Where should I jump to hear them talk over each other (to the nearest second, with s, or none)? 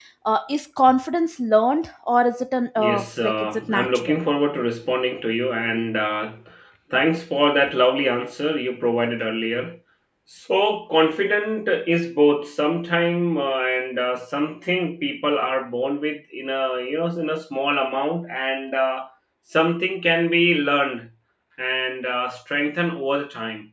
3 s